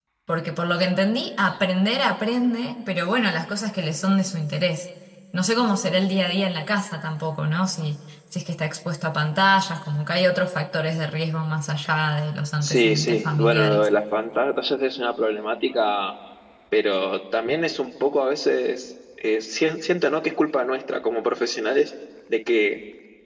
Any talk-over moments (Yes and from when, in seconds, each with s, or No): Yes, from 12.6 s